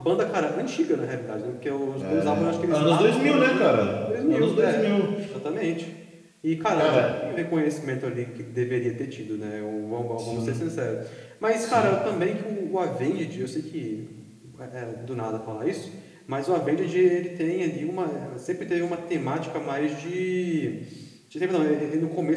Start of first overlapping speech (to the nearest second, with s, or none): 2 s